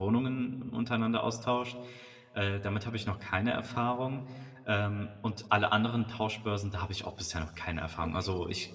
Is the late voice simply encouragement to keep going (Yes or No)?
Yes